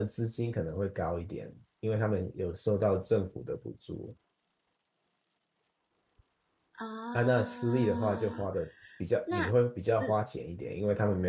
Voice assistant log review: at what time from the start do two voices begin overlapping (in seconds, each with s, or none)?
7.1 s